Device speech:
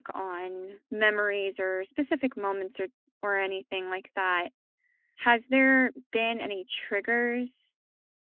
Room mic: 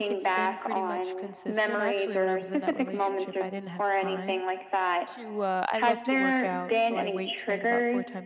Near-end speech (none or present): present